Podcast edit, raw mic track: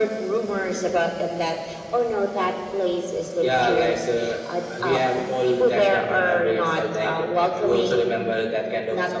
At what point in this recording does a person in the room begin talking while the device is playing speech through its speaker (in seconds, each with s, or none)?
none